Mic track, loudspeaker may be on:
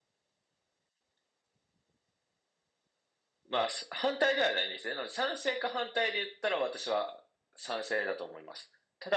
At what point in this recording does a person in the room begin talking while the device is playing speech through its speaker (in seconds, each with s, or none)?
none